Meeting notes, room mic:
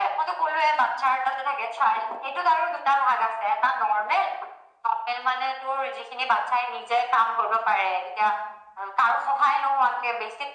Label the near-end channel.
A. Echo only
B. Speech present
A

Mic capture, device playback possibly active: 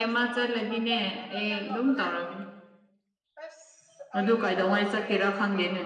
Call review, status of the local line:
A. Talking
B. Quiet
A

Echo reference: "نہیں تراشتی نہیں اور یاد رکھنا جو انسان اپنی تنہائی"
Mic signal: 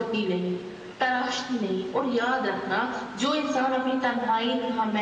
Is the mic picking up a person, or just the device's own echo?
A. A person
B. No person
B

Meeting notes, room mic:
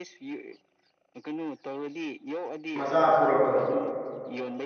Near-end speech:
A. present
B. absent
A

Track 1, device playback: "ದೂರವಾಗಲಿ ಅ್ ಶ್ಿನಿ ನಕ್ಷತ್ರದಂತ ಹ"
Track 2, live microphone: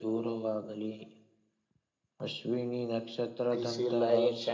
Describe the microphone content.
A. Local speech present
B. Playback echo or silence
A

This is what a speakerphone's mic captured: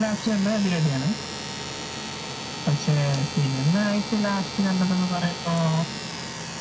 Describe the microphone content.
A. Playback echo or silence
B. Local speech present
A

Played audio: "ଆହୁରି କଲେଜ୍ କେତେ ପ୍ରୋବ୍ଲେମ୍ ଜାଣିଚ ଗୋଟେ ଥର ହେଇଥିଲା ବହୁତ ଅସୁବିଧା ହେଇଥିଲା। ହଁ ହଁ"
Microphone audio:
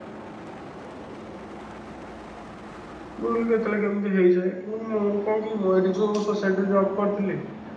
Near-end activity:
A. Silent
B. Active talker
B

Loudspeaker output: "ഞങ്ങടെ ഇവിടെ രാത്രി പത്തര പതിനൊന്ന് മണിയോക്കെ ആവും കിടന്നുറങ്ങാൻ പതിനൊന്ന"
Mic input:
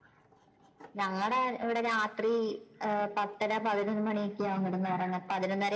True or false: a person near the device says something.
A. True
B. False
B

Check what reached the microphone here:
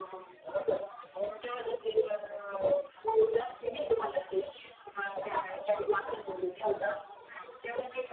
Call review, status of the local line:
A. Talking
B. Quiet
B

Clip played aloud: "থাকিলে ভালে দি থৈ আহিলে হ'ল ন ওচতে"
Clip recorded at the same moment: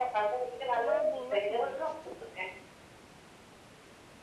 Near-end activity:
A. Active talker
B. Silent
A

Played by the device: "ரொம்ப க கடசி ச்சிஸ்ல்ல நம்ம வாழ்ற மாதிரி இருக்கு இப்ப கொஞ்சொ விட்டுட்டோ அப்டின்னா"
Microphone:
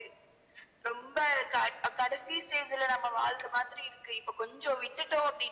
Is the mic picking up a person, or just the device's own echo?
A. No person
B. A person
A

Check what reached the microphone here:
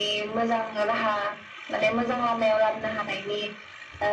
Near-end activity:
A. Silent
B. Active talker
A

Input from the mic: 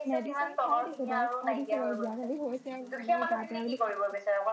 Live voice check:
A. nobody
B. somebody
B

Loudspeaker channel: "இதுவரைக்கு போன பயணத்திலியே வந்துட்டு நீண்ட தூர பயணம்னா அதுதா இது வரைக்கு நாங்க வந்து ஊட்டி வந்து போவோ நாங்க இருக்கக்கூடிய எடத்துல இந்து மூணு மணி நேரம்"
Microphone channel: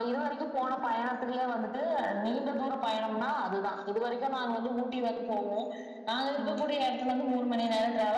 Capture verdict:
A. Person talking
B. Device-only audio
A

